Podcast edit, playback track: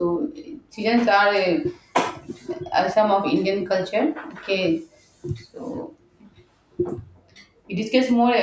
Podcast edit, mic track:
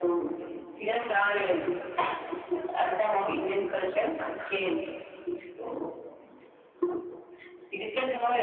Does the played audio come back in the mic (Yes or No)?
Yes